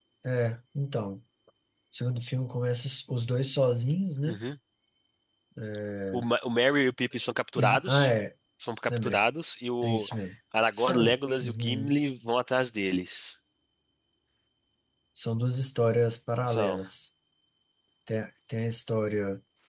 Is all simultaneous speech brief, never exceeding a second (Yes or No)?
Yes